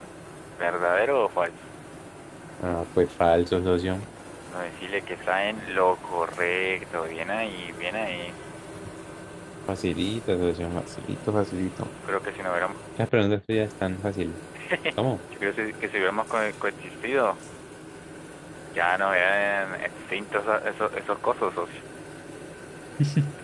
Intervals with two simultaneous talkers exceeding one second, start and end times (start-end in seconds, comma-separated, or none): none